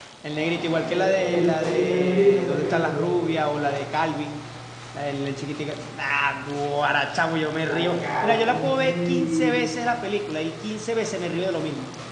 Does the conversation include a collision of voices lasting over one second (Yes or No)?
Yes